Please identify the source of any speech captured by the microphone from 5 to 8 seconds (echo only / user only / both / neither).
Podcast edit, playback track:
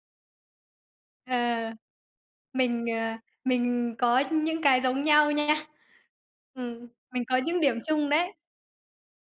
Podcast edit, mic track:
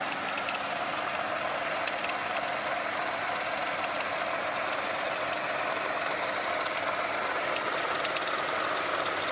neither